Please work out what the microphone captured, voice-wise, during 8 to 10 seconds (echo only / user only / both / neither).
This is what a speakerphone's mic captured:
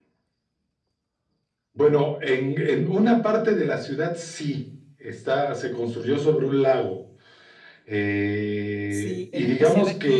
both